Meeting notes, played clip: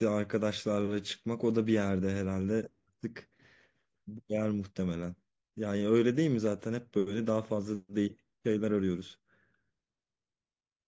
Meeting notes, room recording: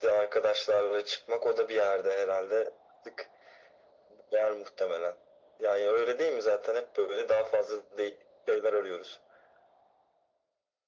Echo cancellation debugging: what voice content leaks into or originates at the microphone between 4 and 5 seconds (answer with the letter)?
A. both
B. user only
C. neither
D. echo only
D